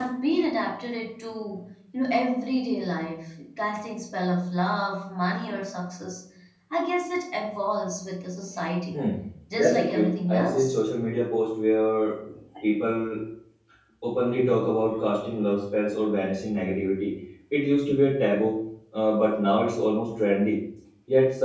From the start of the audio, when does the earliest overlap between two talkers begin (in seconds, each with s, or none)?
9.6 s